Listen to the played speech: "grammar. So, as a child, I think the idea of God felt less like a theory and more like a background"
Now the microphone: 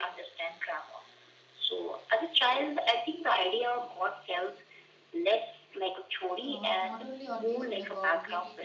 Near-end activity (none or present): present